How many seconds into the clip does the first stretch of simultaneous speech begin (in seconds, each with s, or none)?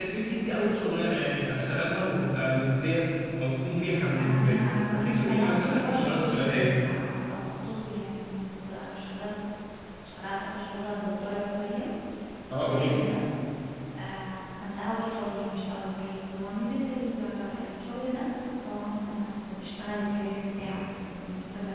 4.2 s